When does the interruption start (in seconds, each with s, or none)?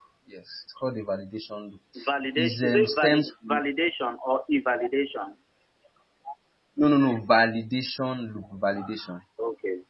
2.4 s